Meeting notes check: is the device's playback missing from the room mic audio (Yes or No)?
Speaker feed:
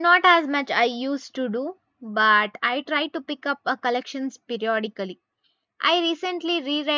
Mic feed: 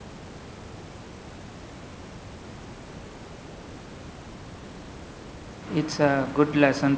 Yes